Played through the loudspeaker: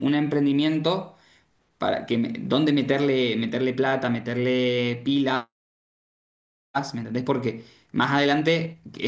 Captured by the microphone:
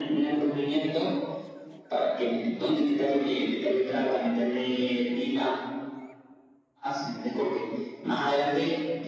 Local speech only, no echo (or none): none